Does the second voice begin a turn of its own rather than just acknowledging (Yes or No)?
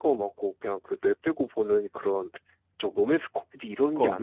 Yes